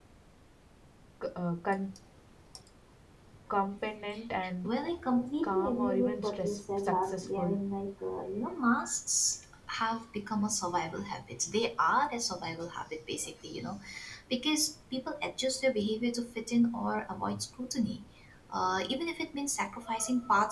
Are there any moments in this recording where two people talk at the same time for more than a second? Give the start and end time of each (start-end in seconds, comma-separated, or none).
5.4-7.5